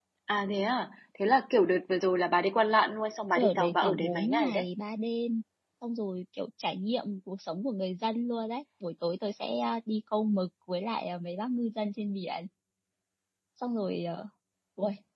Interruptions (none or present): present